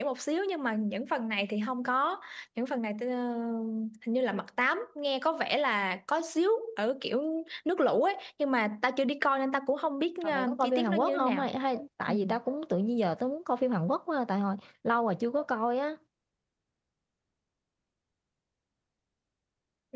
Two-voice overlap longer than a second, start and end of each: 10.2-11.5

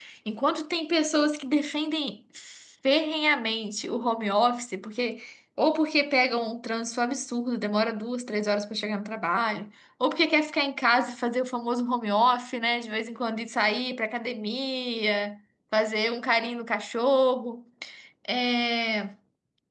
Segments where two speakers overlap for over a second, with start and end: none

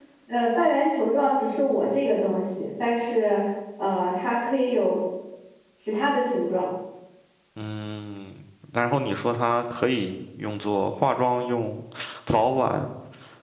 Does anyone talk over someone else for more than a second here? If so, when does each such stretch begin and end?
none

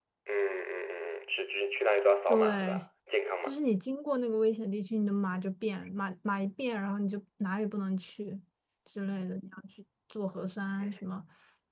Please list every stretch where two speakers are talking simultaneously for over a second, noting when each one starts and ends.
none

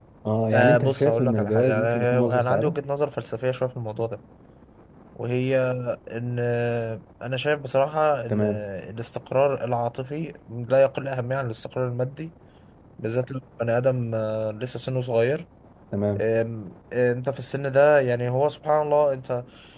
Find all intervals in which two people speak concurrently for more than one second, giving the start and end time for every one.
0.5-2.8

